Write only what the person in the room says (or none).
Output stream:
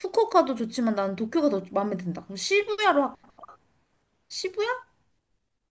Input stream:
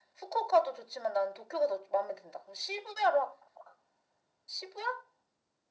none